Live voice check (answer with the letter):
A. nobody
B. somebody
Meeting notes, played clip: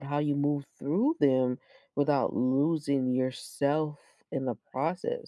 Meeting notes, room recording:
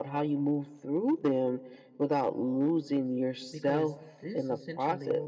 B